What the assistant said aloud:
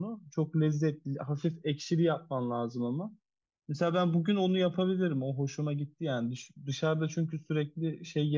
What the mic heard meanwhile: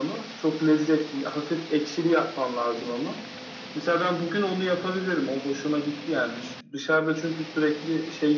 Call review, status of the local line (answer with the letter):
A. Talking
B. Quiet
B